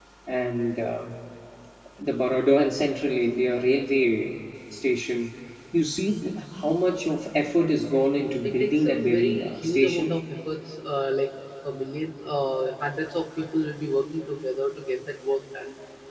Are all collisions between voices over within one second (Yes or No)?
No